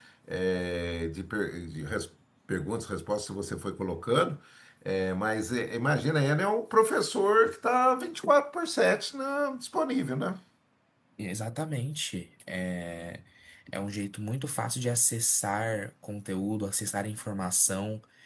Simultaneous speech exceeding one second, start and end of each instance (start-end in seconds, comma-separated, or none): none